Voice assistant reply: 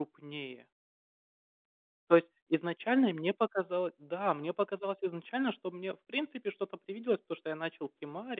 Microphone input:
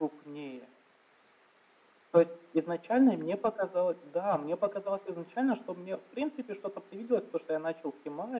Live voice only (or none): none